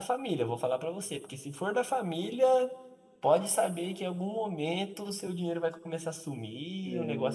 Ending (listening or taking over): listening